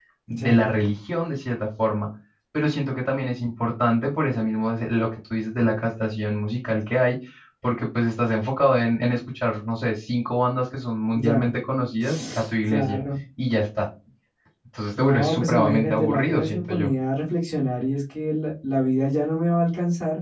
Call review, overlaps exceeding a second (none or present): present